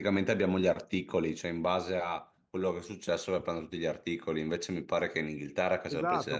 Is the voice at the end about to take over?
Yes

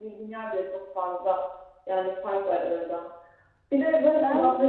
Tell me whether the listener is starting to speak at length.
No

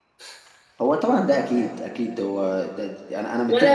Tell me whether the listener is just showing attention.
No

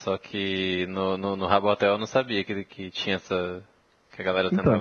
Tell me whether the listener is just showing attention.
No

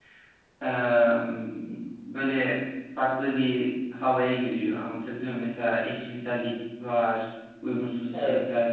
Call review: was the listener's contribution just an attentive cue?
Yes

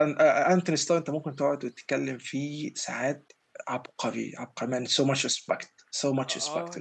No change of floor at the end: No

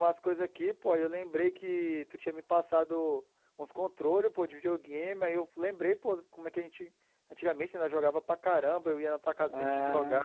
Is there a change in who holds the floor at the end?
No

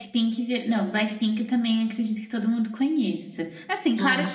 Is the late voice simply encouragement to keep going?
Yes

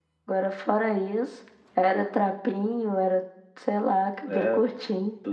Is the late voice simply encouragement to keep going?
No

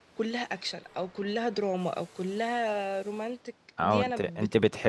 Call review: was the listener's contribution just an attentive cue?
No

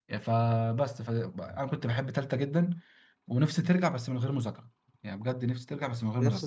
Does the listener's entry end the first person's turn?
Yes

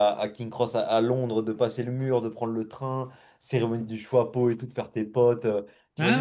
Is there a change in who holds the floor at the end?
No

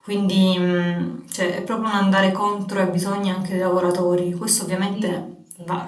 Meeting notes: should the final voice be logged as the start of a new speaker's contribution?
No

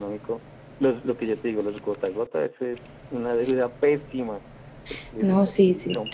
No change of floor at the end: No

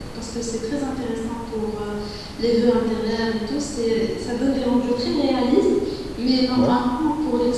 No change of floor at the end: Yes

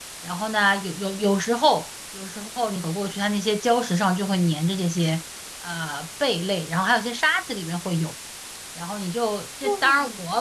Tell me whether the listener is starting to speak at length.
No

